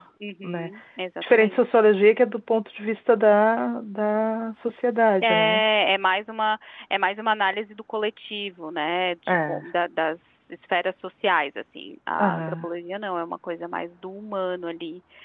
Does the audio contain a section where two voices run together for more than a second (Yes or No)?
No